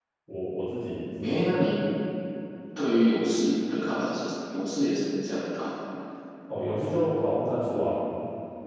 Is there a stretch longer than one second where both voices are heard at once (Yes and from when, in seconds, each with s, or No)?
No